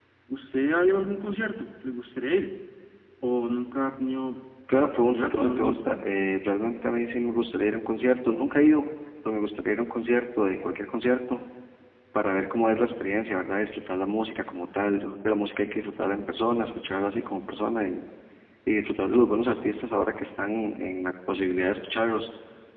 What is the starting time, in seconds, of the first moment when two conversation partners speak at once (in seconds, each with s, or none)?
4.7 s